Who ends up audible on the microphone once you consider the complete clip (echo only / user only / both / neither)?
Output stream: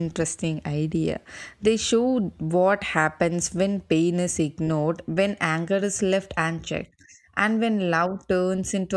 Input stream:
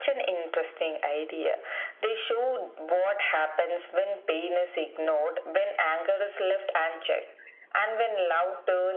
echo only